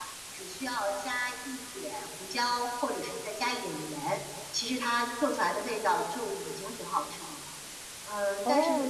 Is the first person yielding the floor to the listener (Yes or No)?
Yes